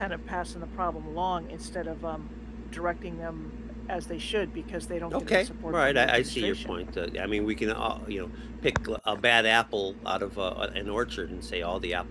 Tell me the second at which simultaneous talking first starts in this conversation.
5.1 s

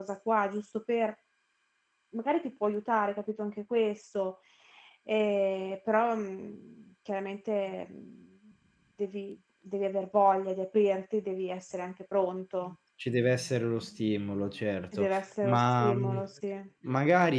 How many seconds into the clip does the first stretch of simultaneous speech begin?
14.9 s

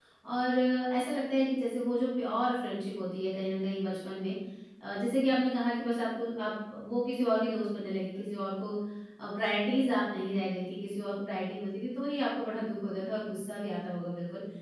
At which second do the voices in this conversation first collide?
none

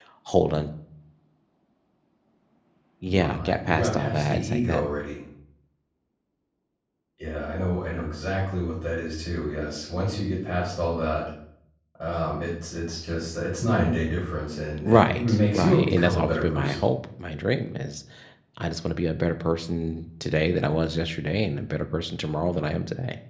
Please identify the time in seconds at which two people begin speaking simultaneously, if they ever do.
3.1 s

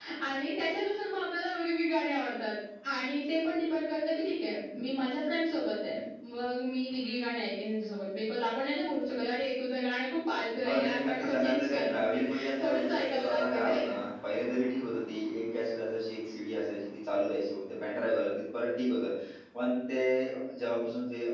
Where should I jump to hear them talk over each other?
10.6 s

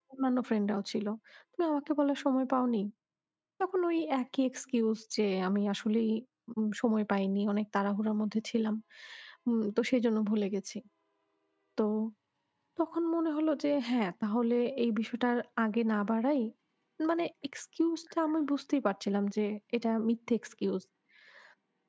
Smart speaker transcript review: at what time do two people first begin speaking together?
none

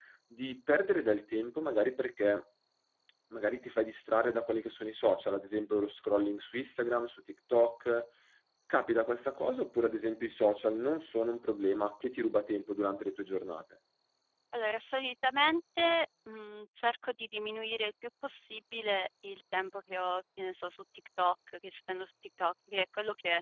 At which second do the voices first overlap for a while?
none

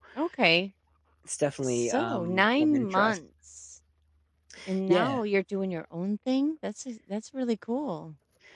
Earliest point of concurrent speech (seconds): 1.6 s

